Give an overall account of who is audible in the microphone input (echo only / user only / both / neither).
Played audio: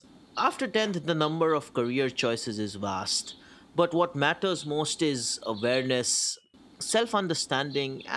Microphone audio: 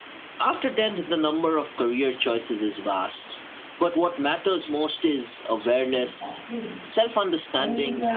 both